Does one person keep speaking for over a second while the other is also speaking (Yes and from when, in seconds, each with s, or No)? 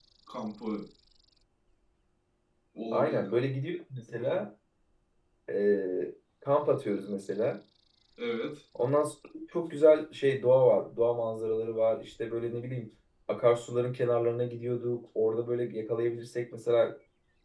No